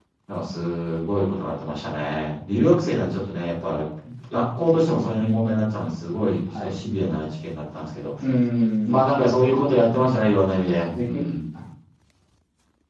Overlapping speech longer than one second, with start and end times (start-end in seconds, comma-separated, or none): none